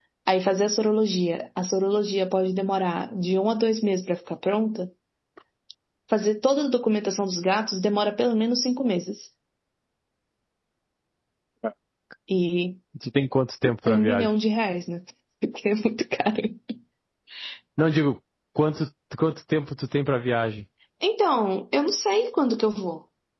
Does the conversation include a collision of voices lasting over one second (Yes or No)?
No